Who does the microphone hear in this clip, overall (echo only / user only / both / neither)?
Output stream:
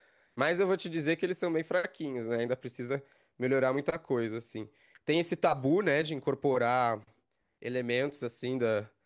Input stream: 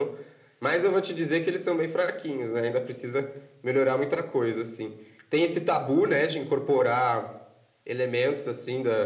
echo only